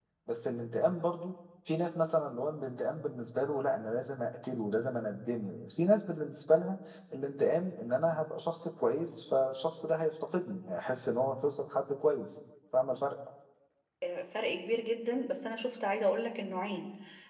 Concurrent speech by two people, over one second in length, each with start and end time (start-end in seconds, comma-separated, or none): none